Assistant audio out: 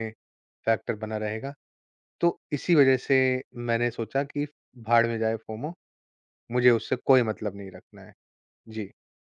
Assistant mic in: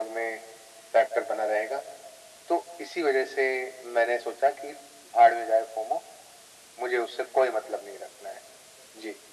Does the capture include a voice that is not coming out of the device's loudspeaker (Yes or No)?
No